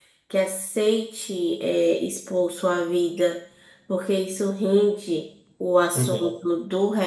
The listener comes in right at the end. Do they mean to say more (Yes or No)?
No